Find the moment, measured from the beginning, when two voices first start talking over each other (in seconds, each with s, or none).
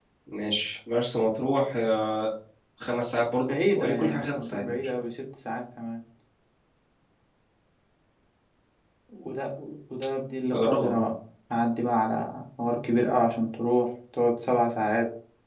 3.5 s